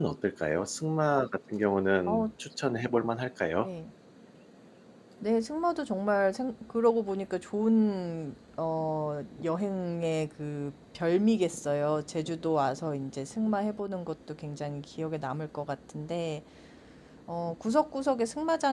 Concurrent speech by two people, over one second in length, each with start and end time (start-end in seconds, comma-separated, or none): none